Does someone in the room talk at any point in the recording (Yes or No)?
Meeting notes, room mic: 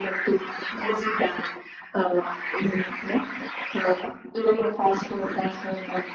No